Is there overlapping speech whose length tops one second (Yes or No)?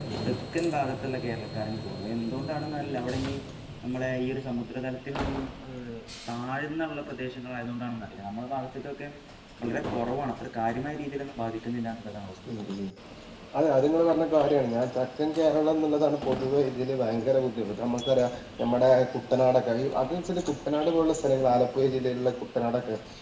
No